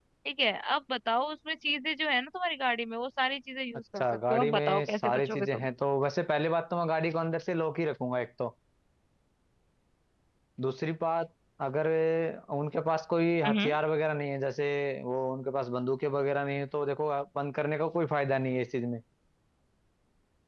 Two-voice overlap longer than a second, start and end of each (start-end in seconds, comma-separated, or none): 4.0-5.7